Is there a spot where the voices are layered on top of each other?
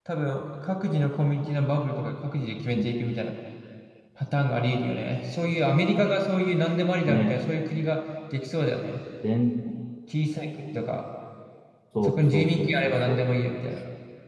Yes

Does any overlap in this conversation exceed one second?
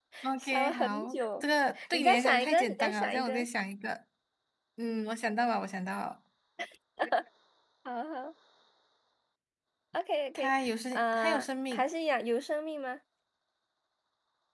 Yes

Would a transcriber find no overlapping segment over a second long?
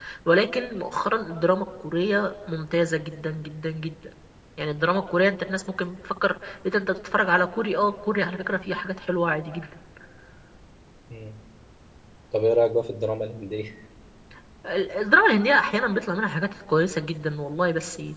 Yes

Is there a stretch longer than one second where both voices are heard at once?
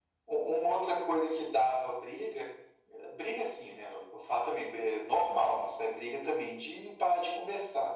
No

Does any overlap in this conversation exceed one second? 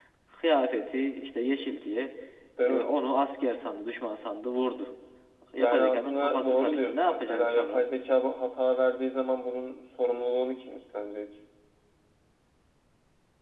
Yes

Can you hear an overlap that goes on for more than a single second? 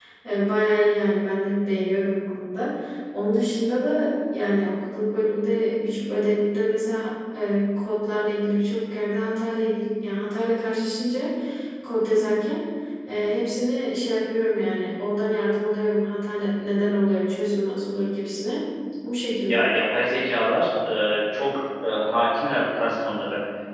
No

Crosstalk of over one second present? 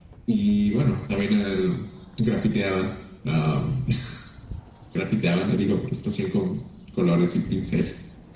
No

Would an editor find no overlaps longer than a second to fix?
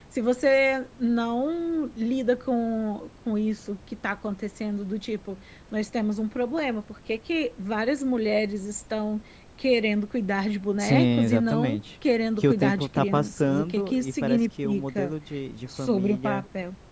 No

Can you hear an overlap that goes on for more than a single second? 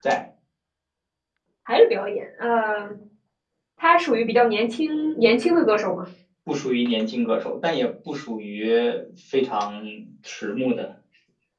No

